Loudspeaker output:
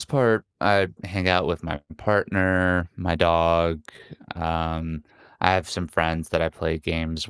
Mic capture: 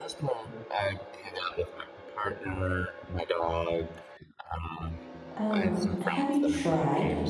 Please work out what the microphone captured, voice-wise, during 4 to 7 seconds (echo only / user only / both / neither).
both